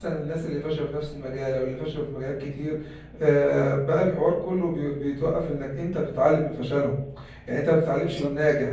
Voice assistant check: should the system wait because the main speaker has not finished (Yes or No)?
Yes